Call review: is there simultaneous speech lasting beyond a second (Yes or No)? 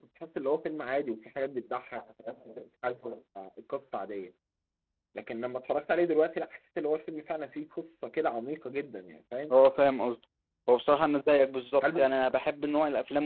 No